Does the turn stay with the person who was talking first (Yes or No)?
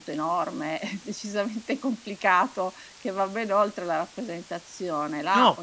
No